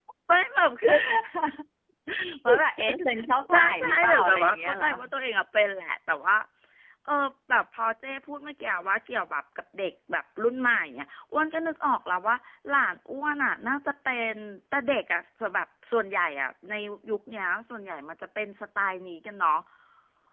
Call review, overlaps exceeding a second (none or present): present